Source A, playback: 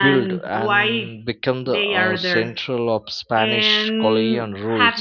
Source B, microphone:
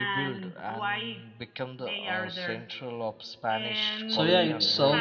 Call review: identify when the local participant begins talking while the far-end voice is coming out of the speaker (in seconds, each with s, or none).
4.0 s